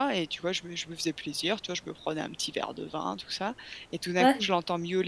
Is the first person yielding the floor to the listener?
No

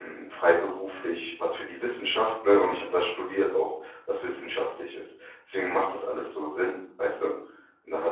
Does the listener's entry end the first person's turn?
Yes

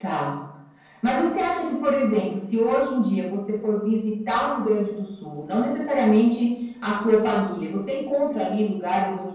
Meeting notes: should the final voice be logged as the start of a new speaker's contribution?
No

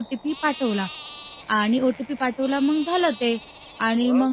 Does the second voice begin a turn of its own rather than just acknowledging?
No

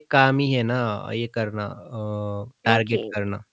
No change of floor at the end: No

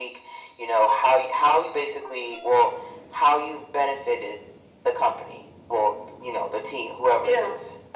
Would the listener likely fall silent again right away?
Yes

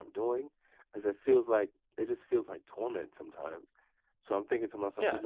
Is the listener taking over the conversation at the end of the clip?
Yes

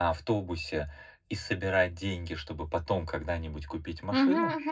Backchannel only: Yes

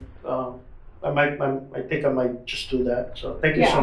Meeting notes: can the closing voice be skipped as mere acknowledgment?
No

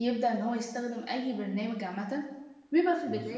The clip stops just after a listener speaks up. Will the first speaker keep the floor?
Yes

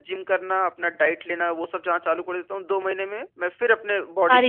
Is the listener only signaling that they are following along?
No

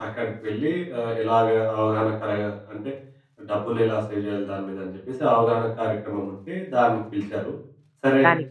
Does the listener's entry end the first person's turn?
No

